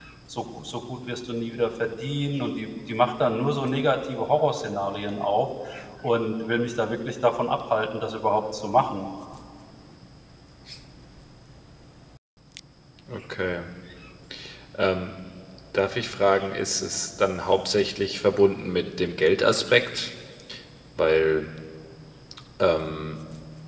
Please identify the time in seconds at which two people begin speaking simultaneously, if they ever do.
none

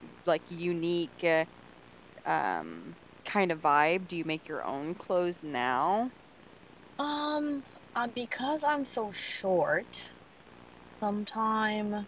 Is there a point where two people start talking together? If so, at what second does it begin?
none

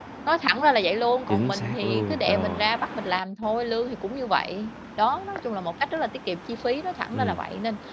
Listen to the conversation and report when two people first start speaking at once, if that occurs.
1 s

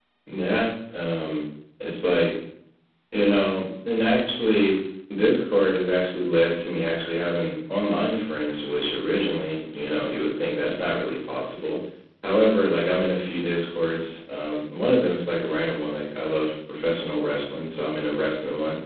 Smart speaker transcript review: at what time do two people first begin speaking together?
none

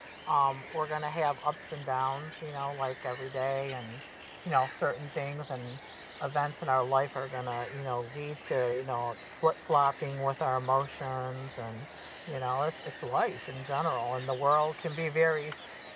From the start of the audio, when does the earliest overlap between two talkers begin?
none

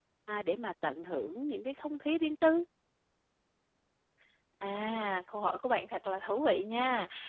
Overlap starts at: none

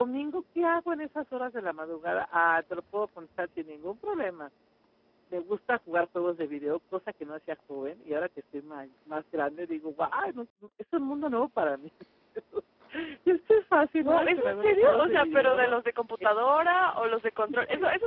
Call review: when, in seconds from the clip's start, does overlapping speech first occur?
14 s

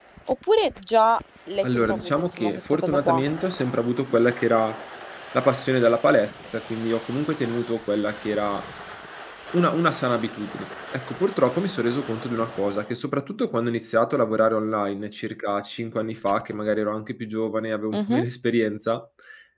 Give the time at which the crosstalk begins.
2 s

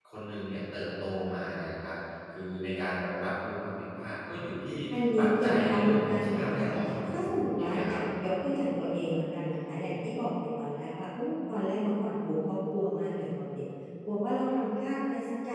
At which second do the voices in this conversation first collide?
5 s

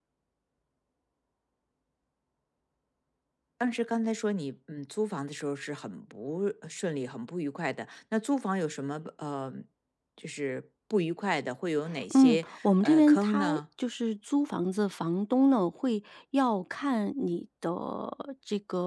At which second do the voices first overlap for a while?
12 s

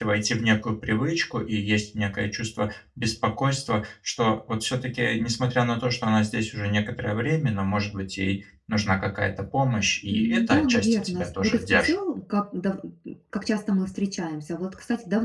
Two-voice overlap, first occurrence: 10 s

